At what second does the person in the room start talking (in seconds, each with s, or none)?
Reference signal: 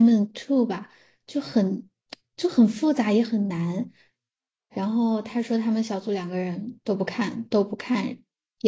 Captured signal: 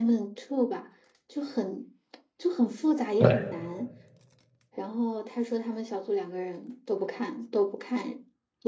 3.2 s